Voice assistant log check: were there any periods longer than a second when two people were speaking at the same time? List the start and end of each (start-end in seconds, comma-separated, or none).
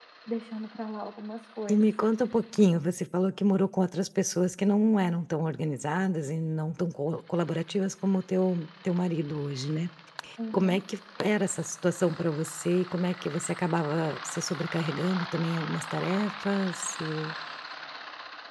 none